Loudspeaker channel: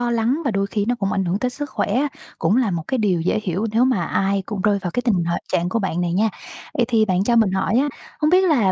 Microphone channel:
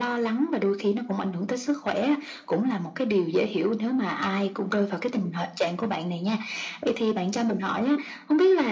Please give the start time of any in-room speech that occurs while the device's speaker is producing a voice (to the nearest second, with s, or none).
none